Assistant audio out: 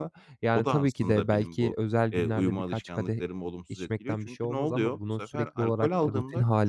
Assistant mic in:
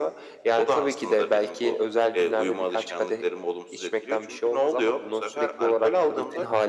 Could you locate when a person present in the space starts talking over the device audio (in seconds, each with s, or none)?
none